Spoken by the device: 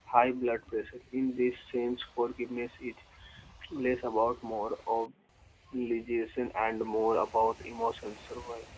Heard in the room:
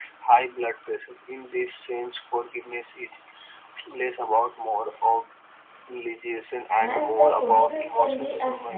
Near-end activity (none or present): present